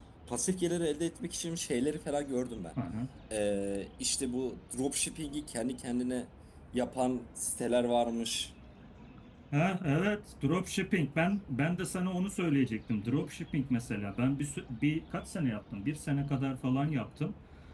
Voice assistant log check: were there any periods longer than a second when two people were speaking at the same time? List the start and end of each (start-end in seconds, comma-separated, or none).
none